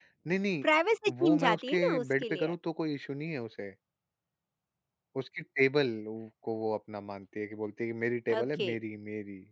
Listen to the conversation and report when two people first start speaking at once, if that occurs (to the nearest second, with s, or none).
1 s